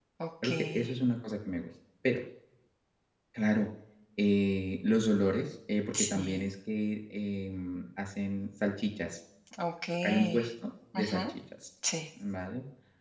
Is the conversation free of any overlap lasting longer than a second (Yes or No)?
Yes